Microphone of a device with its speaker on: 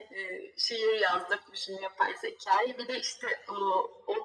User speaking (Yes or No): No